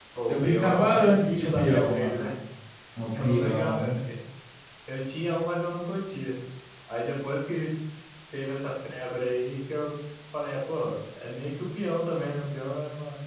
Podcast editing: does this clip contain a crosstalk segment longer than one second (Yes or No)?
Yes